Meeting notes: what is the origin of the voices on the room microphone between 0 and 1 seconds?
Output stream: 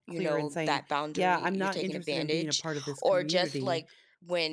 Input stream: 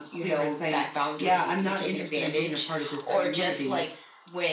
echo only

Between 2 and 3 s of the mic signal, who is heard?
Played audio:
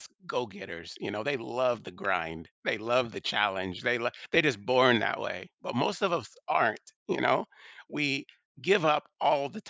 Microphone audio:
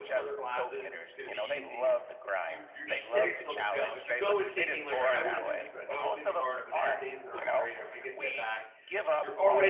both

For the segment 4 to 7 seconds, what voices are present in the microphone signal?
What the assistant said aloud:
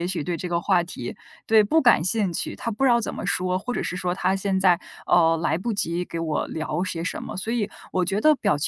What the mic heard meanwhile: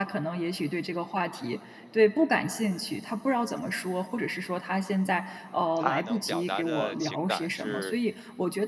both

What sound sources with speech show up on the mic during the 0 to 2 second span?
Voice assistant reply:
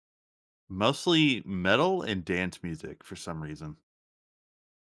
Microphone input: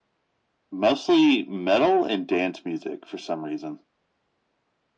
echo only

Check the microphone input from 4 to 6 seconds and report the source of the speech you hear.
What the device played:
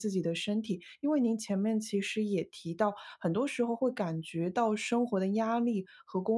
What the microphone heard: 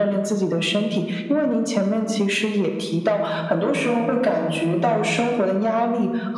echo only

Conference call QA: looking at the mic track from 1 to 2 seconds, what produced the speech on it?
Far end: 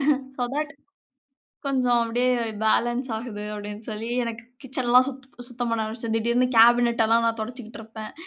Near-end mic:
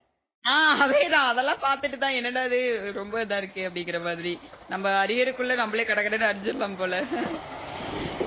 user only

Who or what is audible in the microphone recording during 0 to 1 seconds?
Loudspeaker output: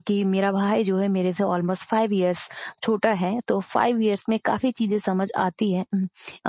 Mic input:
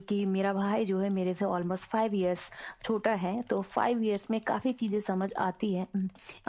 echo only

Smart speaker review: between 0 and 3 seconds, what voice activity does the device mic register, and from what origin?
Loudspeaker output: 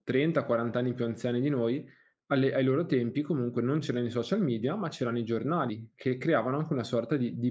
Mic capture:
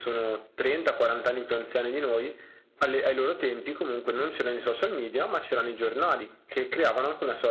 echo only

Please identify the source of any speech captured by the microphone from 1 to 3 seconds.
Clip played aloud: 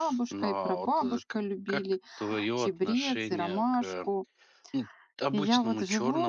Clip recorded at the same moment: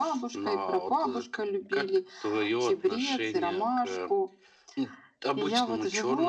echo only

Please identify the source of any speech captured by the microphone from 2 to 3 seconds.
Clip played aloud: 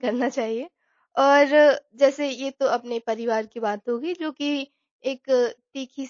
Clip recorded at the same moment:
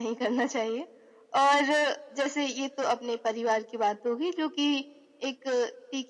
echo only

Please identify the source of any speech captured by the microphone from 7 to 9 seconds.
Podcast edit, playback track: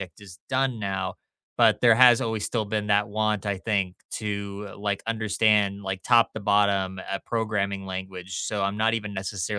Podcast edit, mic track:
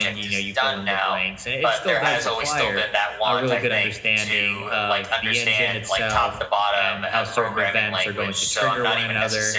both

